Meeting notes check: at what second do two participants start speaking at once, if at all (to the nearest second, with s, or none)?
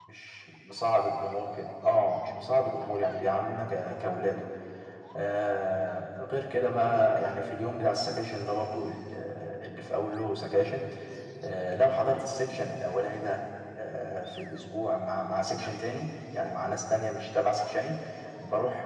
none